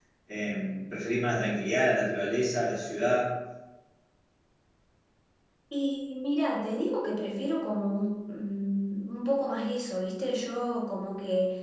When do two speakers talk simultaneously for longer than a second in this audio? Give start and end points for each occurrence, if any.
none

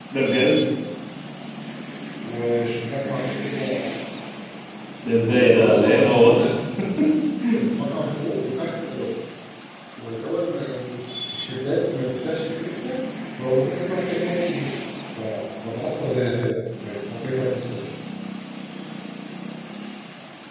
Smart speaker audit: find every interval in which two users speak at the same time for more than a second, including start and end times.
5.2-6.5

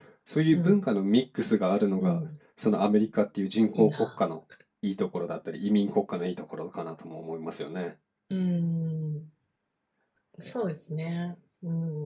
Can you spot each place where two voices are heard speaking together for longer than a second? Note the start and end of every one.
none

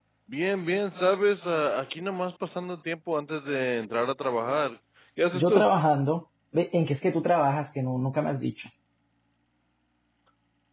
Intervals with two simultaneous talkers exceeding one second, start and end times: none

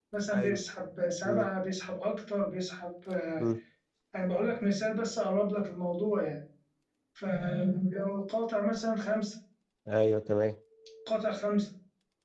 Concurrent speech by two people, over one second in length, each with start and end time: none

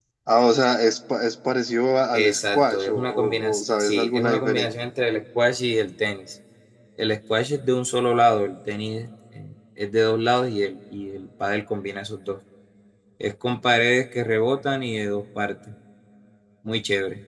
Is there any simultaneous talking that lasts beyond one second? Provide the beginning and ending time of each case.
2.1-4.7

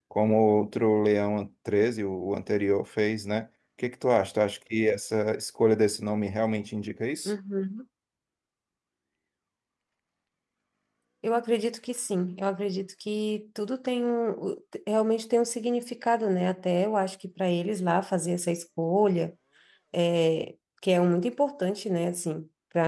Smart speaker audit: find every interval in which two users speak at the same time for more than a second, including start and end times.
none

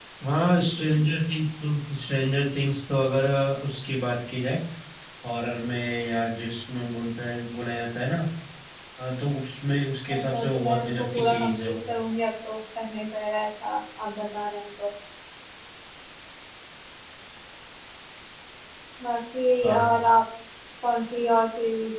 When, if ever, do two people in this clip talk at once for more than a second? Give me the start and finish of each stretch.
10.1-11.7

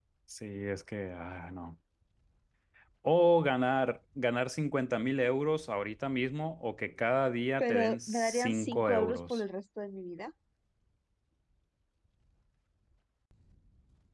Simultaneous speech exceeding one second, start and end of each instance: 7.6-9.4

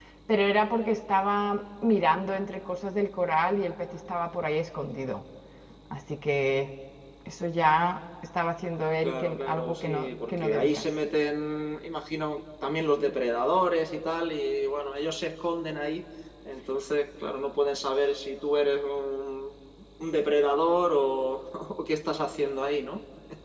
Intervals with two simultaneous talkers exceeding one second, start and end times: 9.0-10.8

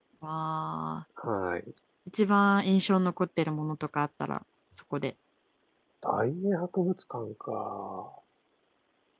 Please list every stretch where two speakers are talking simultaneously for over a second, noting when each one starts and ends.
none

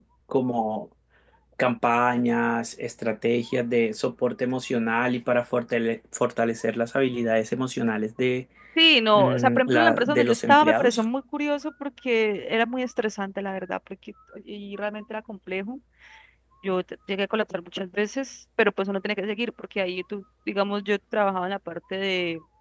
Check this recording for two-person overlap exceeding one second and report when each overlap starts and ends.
9.1-11.0

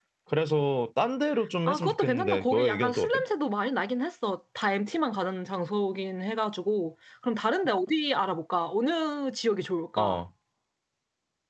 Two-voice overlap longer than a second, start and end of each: 1.7-3.2

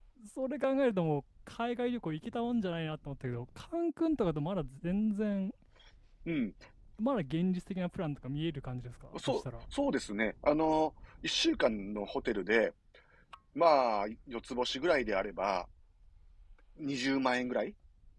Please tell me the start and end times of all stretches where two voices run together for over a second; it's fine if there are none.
none

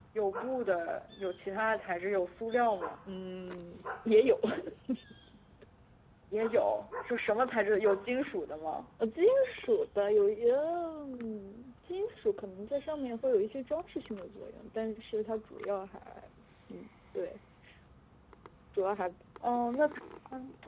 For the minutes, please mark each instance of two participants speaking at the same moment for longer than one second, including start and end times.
none

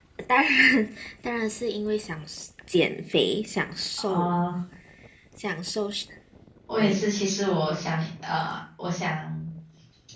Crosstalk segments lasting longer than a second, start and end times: none

